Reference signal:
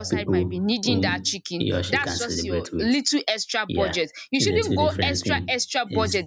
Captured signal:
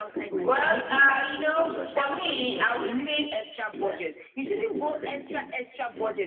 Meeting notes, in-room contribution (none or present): present